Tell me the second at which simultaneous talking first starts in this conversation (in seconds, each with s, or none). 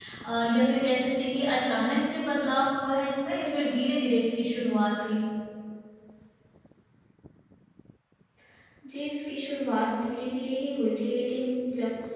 none